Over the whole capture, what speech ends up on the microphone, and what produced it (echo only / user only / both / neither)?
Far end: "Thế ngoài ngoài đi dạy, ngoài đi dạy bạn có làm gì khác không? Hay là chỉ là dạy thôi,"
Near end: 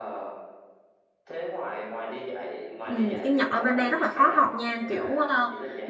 both